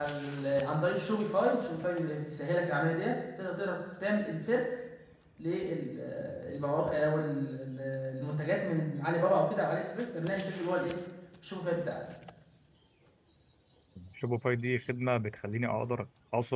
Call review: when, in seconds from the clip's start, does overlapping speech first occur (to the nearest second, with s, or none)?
none